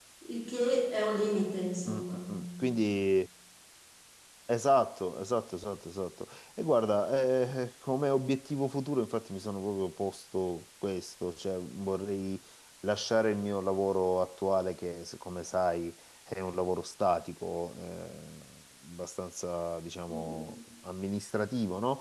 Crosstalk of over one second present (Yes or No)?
No